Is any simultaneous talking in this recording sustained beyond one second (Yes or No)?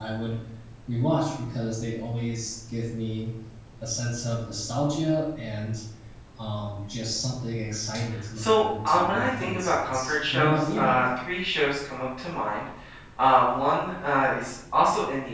Yes